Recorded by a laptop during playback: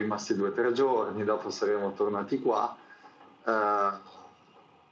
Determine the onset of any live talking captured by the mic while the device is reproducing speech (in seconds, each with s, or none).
none